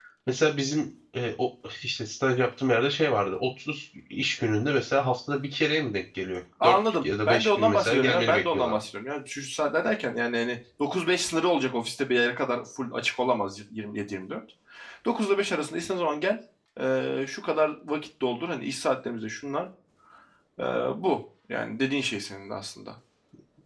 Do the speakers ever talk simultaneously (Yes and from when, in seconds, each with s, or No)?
Yes, from 6.6 s